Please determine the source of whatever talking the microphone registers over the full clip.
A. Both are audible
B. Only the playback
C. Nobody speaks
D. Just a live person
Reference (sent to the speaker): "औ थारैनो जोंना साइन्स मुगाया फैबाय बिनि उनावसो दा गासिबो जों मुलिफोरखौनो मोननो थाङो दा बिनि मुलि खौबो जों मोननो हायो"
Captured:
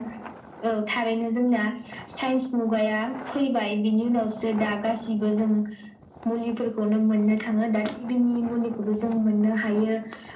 B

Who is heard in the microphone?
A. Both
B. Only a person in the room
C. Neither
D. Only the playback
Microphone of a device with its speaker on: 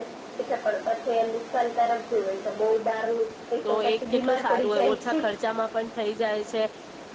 A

